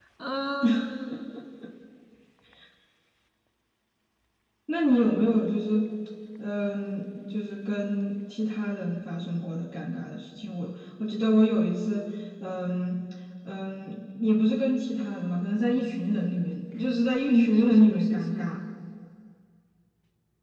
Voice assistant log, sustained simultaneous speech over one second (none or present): present